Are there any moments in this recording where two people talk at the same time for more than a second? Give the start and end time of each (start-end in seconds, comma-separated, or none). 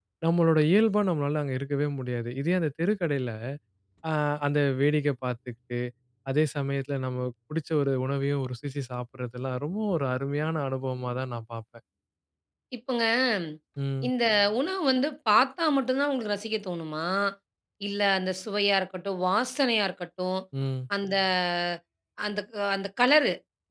none